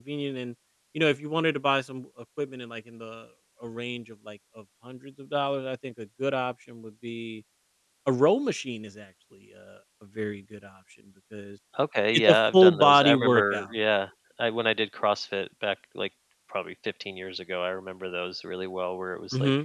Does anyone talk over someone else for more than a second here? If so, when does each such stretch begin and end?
12.1-13.7

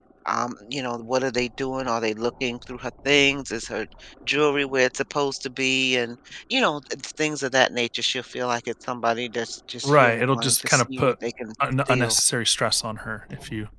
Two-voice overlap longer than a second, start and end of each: 9.8-11.1

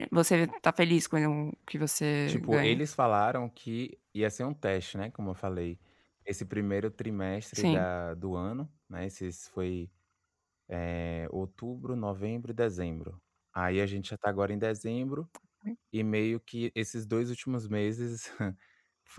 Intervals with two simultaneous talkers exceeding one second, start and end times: none

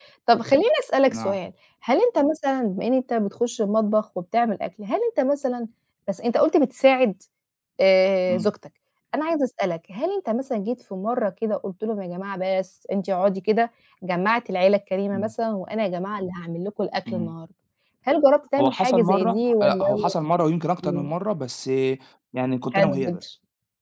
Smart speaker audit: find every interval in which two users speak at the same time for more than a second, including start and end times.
18.6-20.1

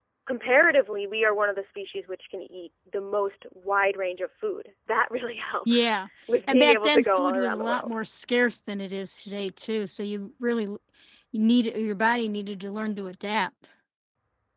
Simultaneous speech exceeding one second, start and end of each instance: 6.5-7.9

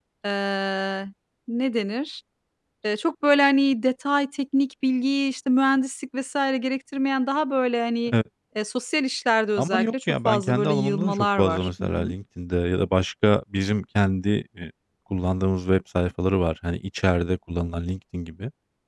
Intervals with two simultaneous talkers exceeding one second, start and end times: 9.6-12.1

